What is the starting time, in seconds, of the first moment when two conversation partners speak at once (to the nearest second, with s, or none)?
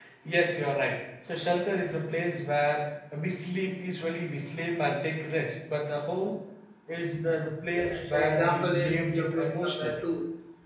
8 s